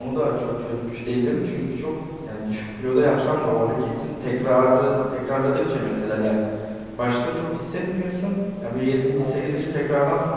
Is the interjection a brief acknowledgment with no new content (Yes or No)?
Yes